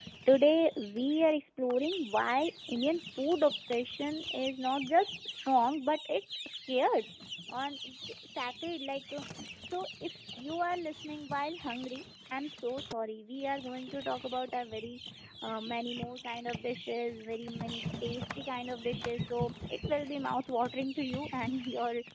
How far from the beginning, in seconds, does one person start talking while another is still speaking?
none

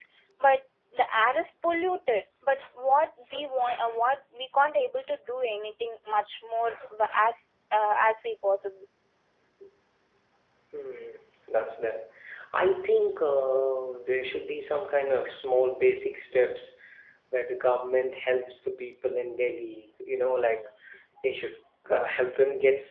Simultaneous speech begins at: none

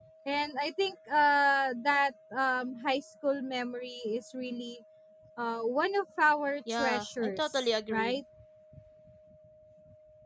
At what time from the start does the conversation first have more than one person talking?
6.7 s

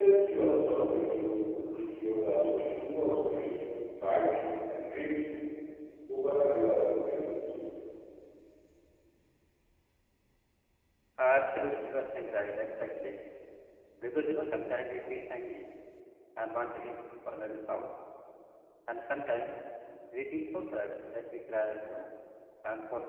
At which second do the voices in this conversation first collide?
none

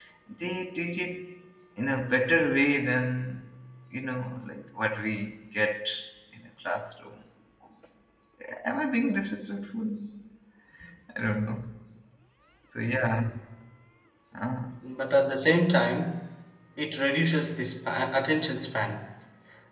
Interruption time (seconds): none

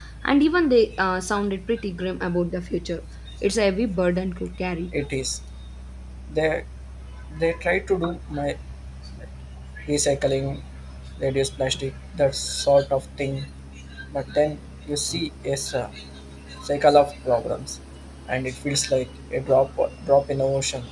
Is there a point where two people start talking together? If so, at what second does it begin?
none

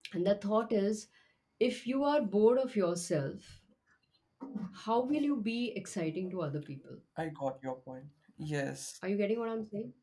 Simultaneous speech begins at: none

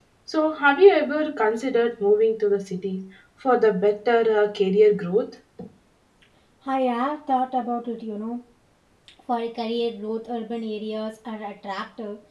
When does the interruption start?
none

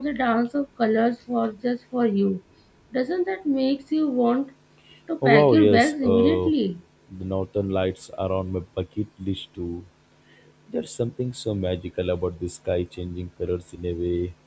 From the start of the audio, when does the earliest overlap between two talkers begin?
5.2 s

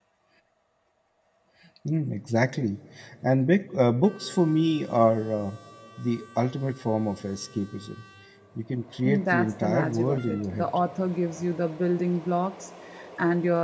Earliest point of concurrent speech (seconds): 9.0 s

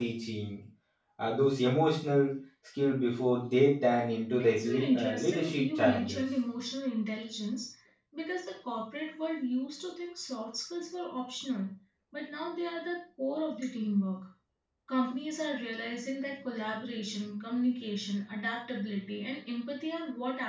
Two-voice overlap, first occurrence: 4.6 s

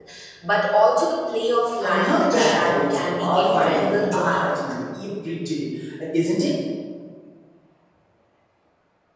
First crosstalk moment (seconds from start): 1.8 s

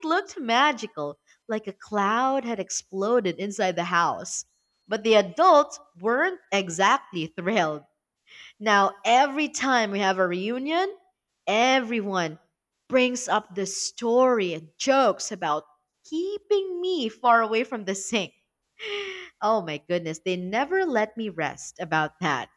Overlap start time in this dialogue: none

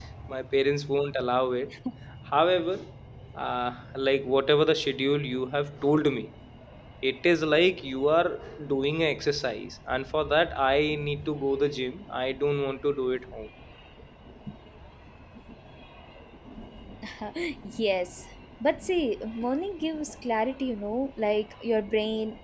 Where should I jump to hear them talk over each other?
none

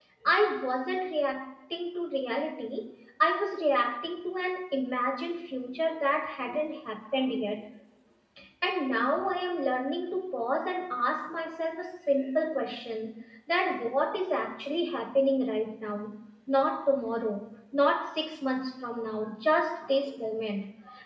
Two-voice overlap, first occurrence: none

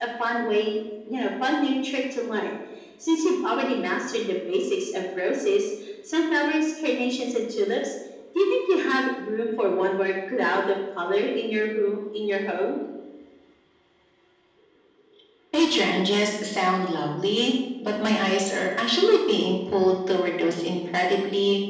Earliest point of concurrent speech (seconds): none

